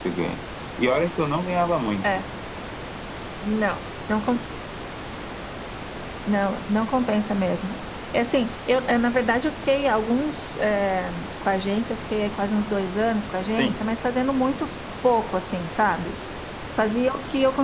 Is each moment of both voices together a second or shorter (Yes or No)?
Yes